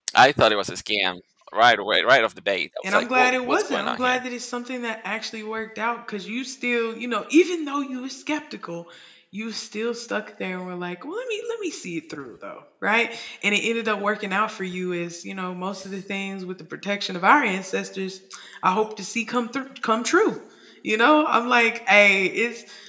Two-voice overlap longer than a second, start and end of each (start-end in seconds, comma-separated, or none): 2.9-4.2